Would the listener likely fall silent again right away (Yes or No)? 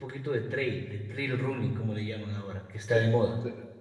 No